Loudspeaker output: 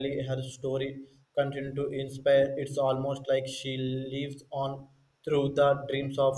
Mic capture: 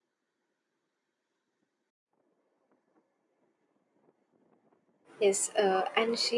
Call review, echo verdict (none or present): none